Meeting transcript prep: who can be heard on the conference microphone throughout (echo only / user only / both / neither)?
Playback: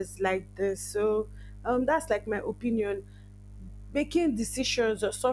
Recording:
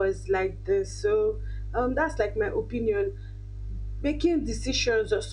echo only